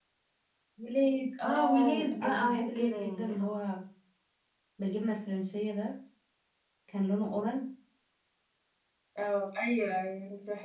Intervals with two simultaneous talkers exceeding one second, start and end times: 1.4-3.6

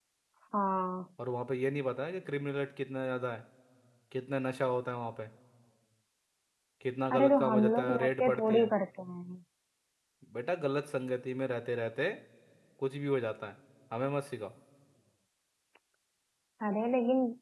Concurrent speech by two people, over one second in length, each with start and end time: 7.1-8.7

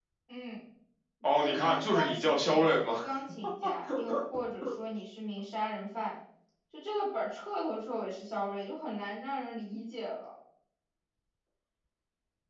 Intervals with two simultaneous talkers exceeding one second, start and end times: 1.4-2.9

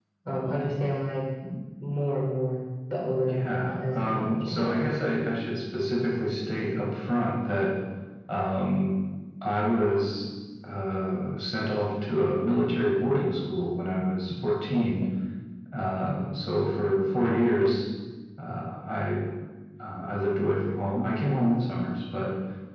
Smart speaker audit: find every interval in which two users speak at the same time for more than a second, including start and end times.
3.3-4.6

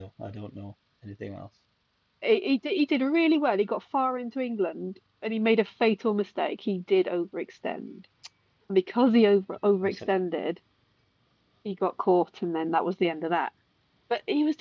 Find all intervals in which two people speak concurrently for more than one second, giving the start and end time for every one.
none

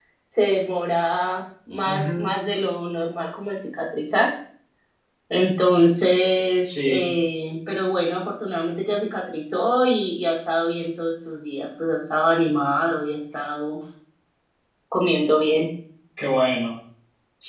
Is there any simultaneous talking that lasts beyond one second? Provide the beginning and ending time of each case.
none

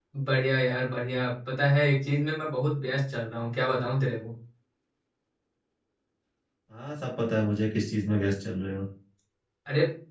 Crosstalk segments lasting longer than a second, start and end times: none

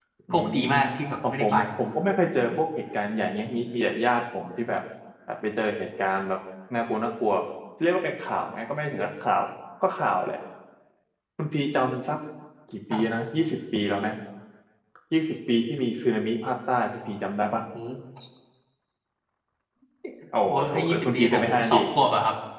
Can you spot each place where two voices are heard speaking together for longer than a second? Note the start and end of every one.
20.5-21.8

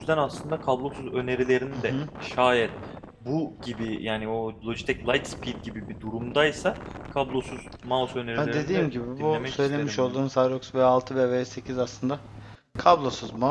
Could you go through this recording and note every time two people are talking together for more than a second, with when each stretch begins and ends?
8.4-10.2

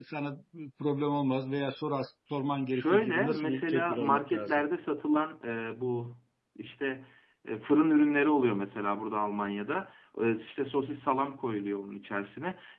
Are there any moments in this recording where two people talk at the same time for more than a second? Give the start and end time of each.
2.7-4.6

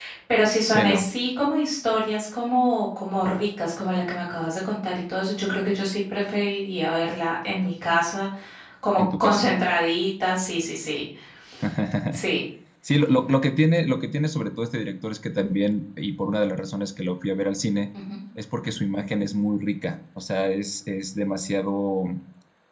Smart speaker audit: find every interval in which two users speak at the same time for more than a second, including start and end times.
none

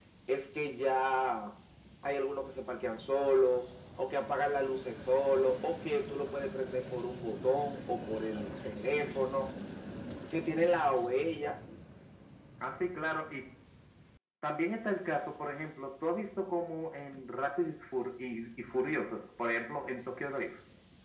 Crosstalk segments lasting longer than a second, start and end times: none

